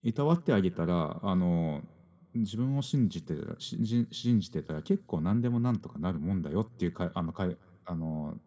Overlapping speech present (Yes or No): No